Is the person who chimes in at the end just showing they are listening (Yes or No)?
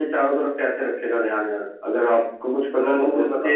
No